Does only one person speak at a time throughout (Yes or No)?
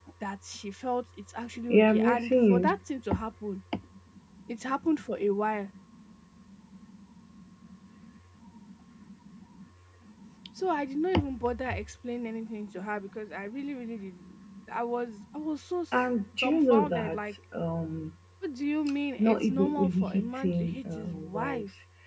No